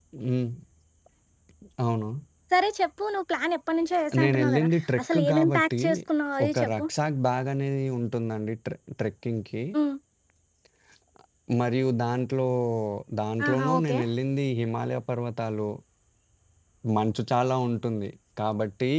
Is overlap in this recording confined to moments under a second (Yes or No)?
No